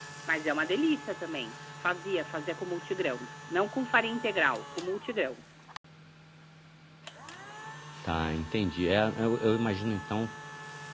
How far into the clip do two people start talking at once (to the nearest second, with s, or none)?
none